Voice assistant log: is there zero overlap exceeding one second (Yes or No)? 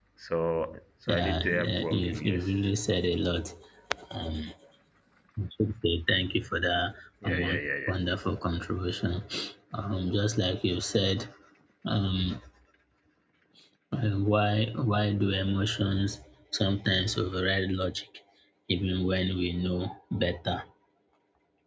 No